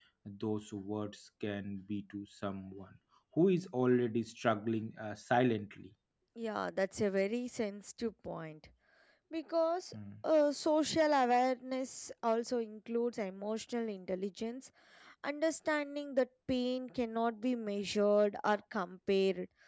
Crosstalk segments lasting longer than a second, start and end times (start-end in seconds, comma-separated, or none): none